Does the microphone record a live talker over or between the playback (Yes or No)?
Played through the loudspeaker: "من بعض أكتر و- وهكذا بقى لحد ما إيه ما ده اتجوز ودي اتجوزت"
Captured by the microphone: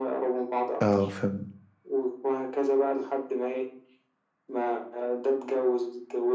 Yes